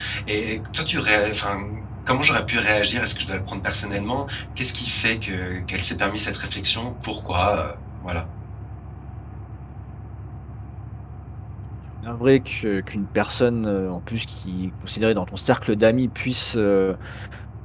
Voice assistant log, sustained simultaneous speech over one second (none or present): none